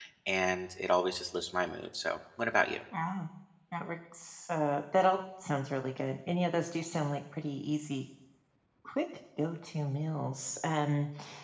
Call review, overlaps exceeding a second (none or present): none